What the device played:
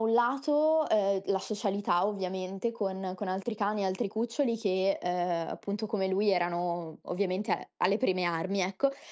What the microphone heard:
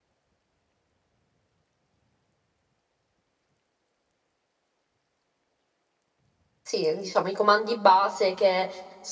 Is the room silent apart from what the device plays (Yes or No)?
No